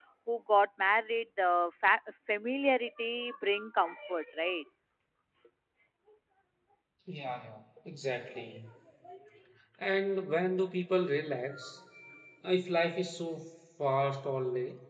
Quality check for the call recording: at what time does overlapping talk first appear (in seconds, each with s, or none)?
none